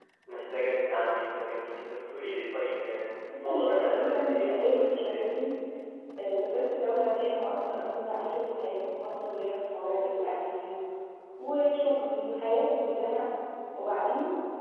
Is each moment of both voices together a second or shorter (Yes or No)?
No